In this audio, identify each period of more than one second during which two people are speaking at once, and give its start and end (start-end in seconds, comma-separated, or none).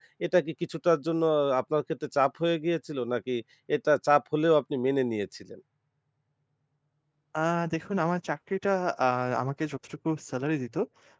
none